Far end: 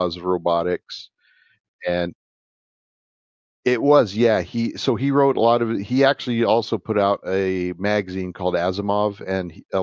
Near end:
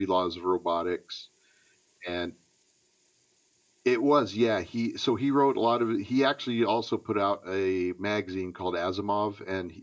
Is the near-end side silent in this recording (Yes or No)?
Yes